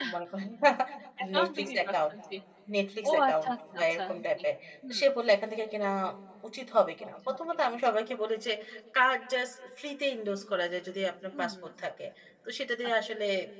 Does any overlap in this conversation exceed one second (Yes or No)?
Yes